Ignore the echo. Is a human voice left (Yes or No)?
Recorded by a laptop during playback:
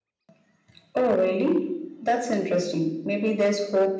No